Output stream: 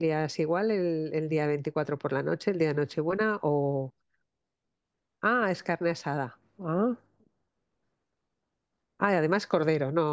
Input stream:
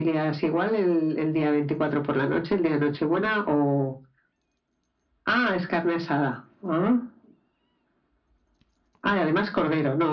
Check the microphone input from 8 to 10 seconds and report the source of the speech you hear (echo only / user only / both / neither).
echo only